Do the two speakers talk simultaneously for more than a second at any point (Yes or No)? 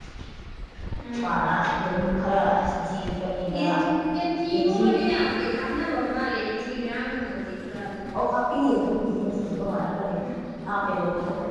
No